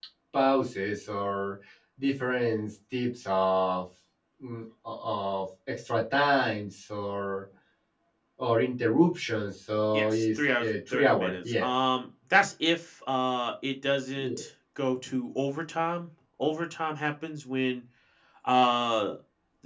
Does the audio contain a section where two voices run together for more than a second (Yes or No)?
Yes